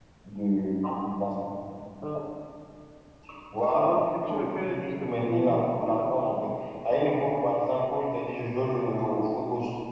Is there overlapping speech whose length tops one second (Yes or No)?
Yes